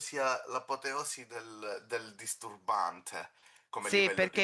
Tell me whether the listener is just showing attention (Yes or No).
No